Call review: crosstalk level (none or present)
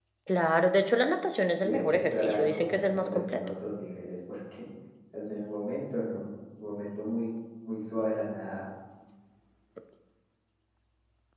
present